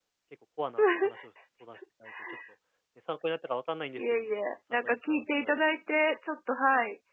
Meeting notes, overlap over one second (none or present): present